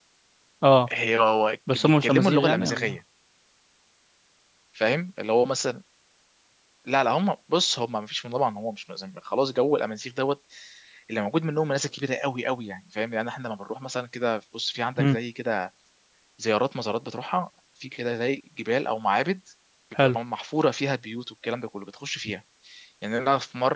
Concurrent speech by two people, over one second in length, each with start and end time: 1.7-3.0

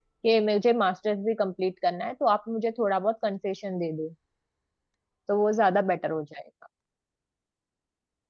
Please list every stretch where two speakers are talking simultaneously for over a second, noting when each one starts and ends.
none

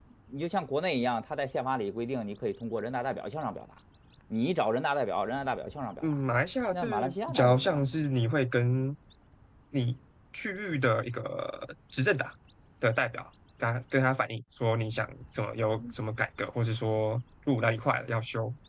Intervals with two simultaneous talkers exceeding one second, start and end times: 6.7-7.9

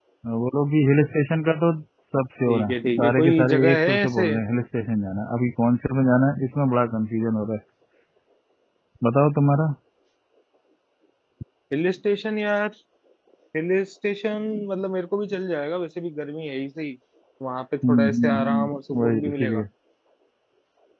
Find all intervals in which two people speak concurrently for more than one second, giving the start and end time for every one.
2.5-4.2, 17.9-19.6

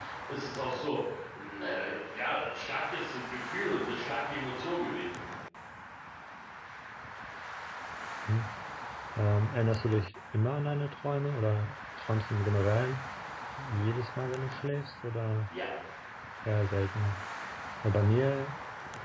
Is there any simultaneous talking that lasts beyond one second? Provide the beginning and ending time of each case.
none

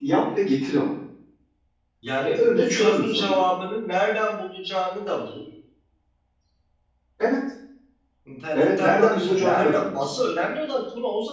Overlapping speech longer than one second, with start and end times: 2.2-3.4, 8.5-10.1

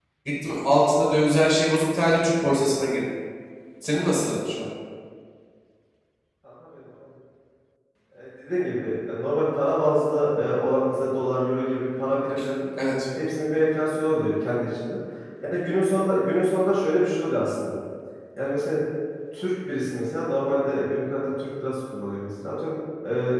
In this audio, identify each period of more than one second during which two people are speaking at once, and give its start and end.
none

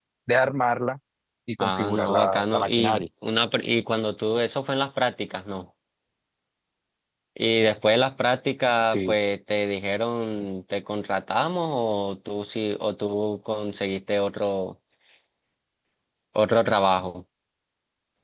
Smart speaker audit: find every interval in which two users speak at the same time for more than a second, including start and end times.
1.6-3.0

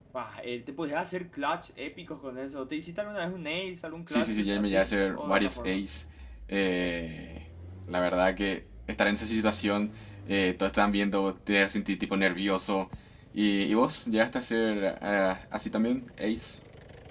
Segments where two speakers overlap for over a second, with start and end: 4.1-5.8

